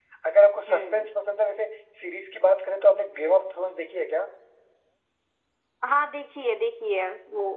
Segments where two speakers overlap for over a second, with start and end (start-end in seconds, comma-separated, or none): none